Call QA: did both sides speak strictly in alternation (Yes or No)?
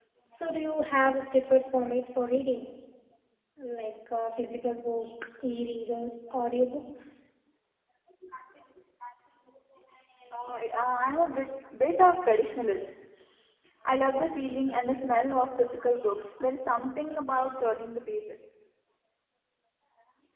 Yes